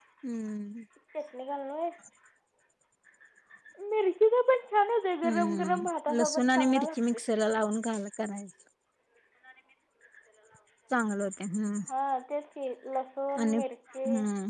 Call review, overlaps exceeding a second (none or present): present